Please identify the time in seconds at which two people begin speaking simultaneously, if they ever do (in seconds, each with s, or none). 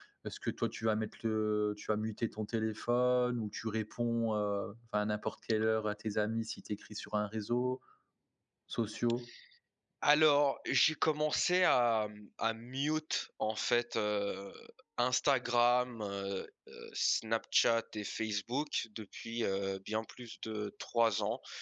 none